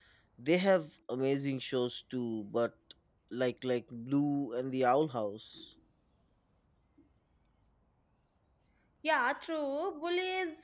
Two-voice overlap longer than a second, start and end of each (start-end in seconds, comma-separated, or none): none